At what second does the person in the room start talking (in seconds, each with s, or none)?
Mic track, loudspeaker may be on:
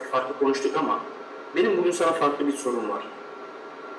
none